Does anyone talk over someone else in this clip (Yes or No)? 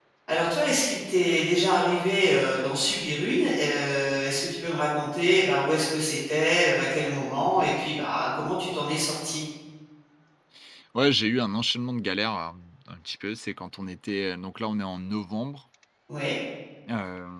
No